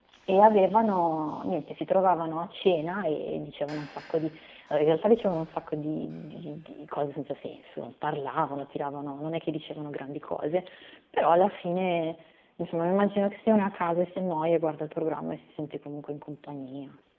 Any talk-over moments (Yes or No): No